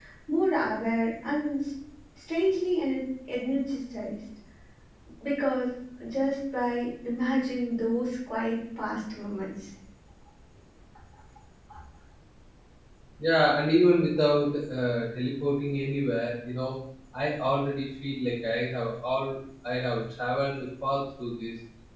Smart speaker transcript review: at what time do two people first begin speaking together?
none

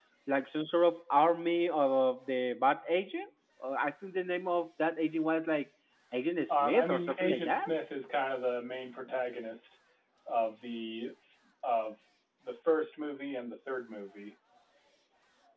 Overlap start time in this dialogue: 6.5 s

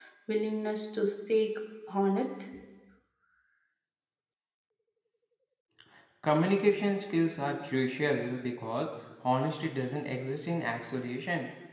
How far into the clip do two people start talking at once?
none

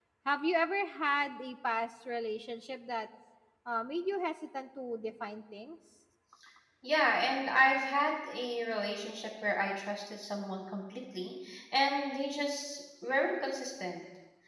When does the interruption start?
none

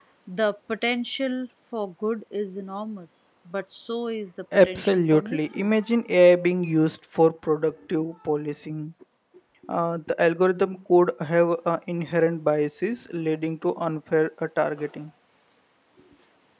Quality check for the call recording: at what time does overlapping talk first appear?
4.5 s

